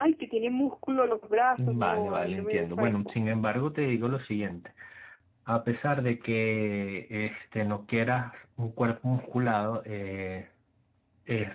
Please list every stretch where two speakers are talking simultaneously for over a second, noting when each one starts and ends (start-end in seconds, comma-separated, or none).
1.6-3.1